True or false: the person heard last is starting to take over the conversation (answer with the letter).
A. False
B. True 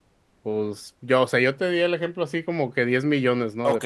B